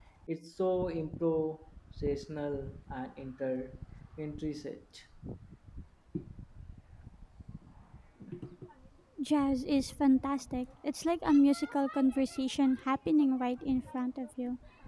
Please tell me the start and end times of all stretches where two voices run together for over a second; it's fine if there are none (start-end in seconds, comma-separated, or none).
none